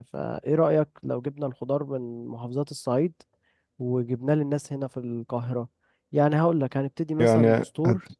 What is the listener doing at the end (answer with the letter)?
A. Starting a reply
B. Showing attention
A